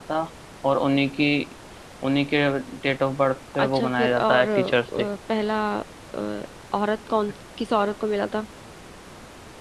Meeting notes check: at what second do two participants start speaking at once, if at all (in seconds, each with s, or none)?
3.6 s